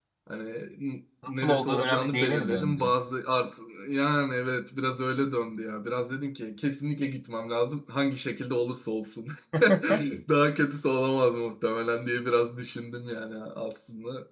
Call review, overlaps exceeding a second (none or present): present